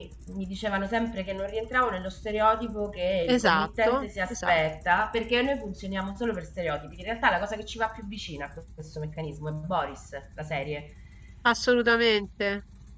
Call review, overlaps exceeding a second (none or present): present